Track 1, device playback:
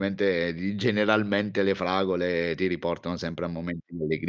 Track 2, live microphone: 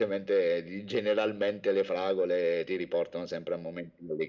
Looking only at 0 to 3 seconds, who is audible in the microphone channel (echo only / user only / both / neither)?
echo only